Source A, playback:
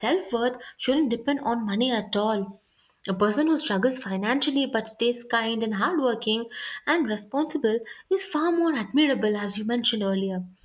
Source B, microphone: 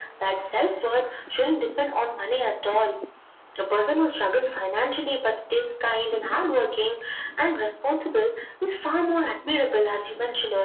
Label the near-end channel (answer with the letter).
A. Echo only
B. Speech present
A